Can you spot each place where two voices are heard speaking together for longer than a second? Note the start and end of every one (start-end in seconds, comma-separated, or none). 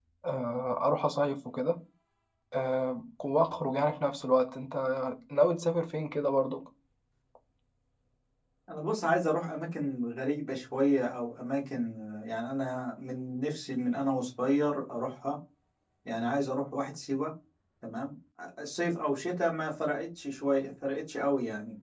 none